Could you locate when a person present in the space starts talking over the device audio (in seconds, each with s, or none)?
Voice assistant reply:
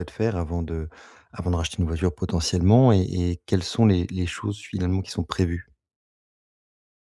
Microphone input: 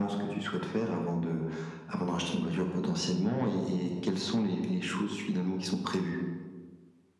none